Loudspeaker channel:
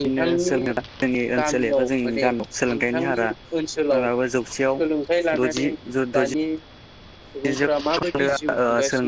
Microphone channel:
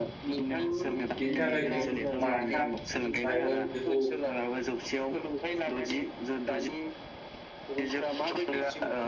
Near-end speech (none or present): present